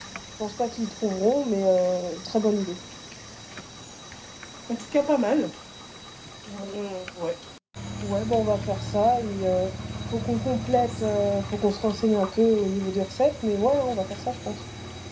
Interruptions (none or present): none